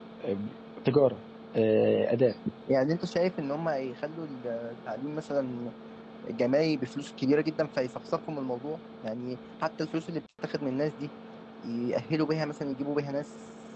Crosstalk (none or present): none